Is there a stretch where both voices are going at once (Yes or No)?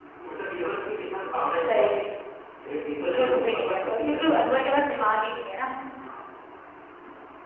Yes